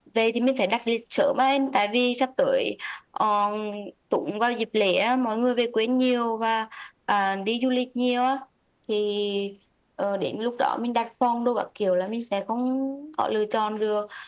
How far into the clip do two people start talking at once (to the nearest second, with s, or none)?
none